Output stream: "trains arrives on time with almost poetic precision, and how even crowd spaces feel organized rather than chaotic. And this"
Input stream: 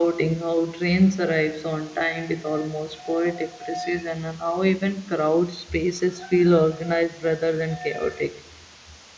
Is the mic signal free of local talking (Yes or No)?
Yes